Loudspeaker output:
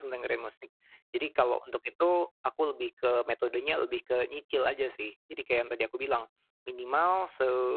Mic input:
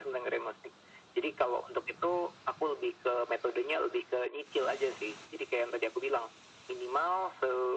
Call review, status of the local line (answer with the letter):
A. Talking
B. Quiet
B